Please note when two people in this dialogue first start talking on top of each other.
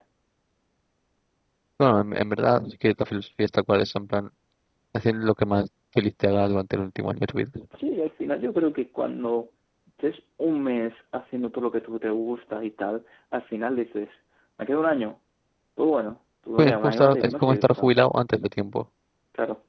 16.6 s

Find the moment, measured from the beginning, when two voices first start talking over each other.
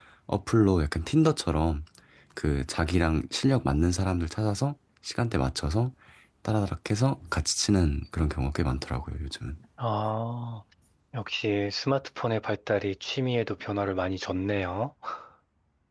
none

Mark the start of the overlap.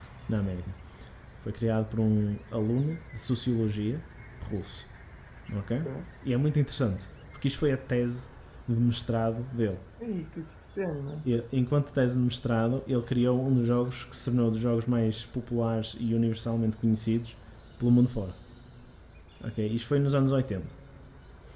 none

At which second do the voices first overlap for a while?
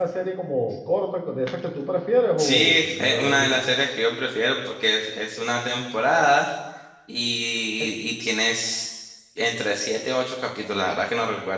2.4 s

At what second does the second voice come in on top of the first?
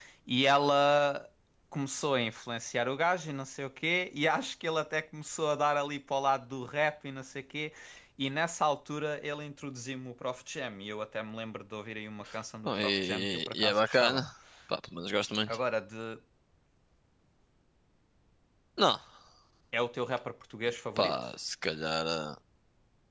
12.7 s

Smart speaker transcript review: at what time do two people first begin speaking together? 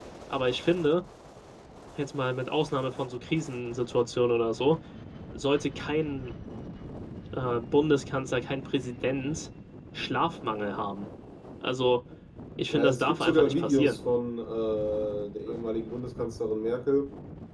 12.7 s

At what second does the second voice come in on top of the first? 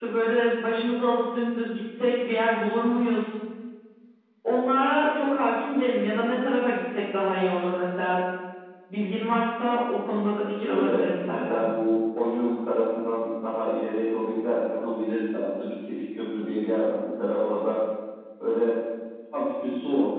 10.3 s

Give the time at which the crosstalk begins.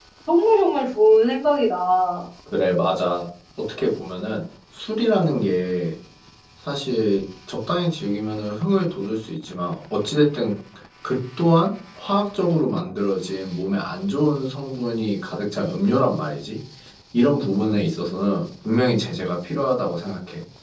none

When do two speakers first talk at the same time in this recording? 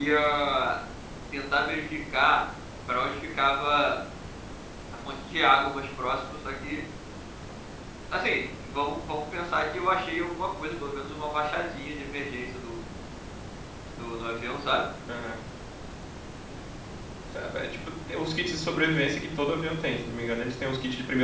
none

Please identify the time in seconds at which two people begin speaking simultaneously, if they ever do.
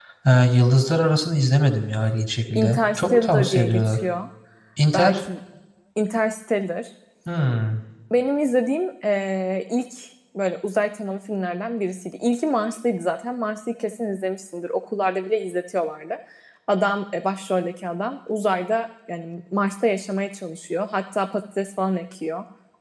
2.5 s

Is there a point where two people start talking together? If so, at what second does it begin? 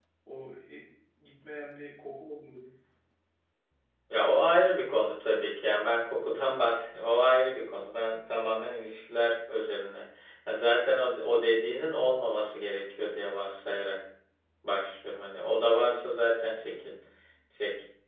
none

